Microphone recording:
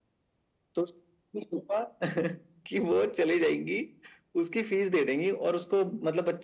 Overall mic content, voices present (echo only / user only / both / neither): echo only